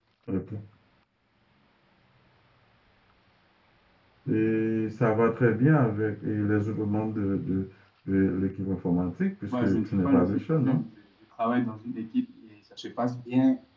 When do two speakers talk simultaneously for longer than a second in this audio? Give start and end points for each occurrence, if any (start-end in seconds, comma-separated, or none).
9.6-10.8